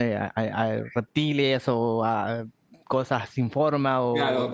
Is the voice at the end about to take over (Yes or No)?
Yes